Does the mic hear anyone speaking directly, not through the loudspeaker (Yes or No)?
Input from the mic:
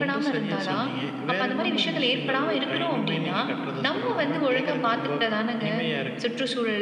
No